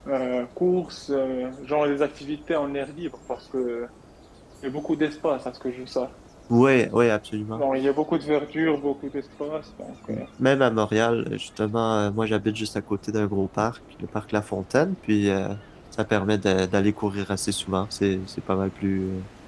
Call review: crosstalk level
none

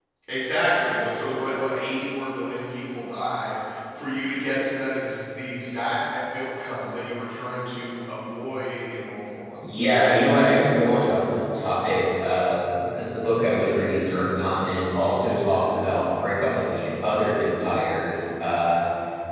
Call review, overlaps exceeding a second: none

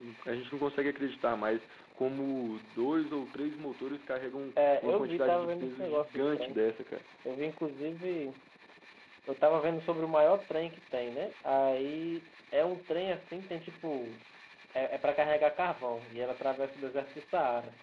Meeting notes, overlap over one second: present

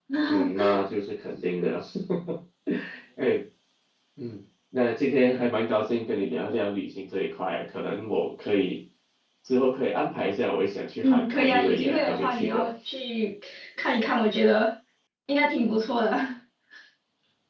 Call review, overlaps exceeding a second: present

